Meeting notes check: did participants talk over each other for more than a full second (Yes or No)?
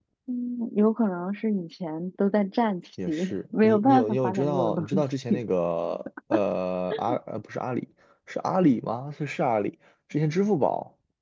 Yes